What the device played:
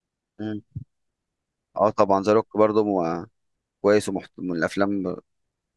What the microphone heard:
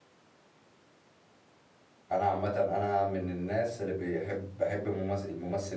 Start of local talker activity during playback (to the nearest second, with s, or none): 2 s